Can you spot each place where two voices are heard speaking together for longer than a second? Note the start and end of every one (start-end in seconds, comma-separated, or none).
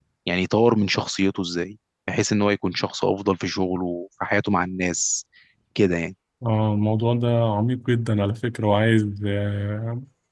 none